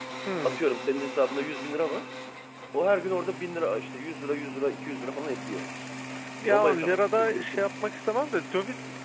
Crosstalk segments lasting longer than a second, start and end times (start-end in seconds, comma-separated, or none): 6.5-7.7